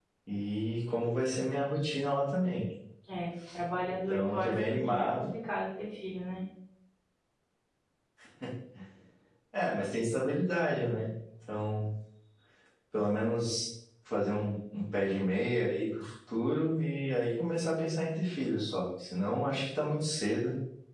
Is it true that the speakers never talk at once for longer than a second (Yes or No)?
No